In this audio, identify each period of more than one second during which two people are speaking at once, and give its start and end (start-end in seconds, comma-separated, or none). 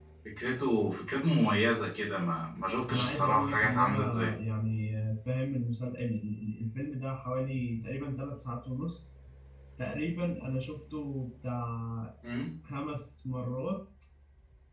2.9-4.3